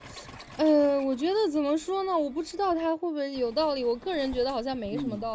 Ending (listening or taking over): listening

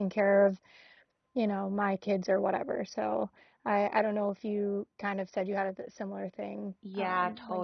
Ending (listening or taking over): taking over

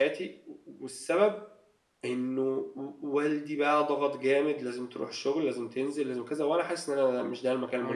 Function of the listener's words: taking over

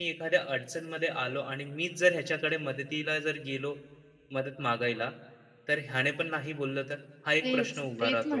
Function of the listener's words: taking over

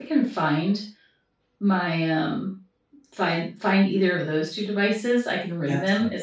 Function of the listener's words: listening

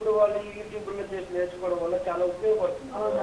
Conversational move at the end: taking over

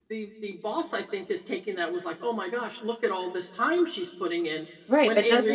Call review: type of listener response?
taking over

